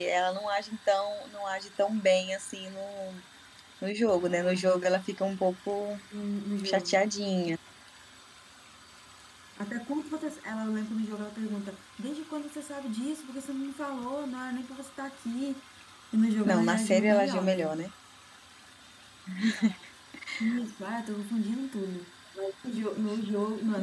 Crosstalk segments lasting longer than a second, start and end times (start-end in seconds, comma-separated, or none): 16.4-17.7